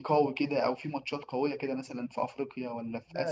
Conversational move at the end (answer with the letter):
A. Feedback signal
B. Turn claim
B